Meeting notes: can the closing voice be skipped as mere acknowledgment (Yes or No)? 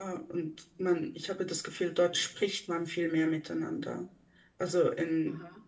Yes